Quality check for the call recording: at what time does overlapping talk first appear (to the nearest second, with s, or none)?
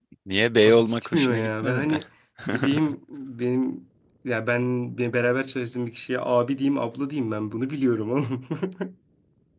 1 s